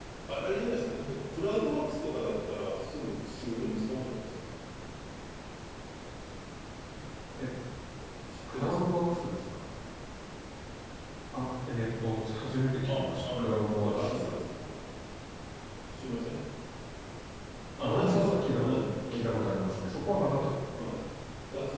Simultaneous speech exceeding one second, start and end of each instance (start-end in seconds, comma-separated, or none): 12.9-14.4, 17.8-19.6